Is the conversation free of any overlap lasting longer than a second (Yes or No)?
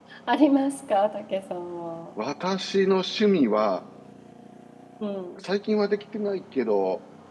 Yes